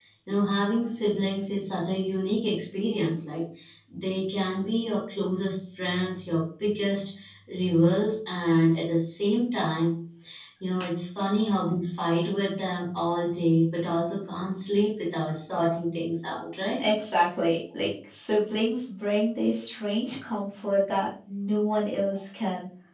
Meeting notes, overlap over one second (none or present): none